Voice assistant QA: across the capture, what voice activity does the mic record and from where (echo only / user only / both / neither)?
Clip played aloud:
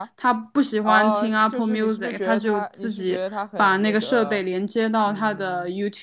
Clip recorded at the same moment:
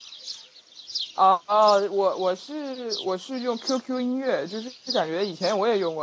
user only